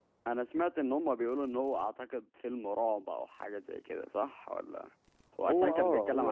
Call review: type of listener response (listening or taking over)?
taking over